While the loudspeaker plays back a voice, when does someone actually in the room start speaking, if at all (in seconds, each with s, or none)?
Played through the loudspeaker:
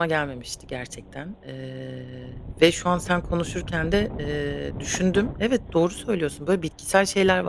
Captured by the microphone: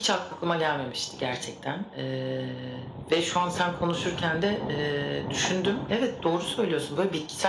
none